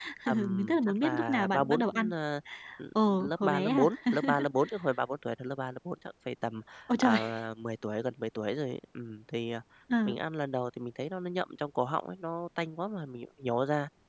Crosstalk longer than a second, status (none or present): present